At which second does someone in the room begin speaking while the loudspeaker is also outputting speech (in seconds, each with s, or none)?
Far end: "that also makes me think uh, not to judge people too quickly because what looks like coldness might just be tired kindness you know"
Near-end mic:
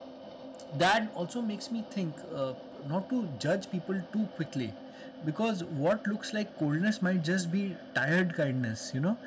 none